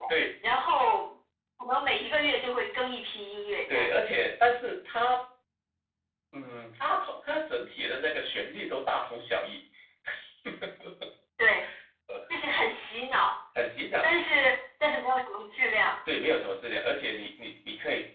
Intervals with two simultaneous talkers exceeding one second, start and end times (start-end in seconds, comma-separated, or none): none